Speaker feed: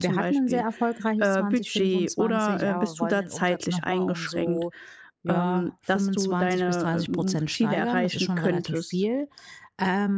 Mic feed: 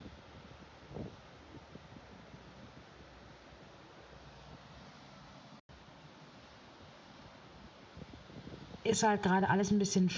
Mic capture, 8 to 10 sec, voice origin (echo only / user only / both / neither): user only